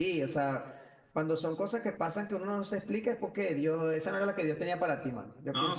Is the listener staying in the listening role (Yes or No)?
No